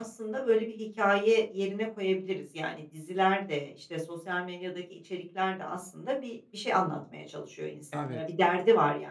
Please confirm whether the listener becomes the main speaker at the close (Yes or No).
No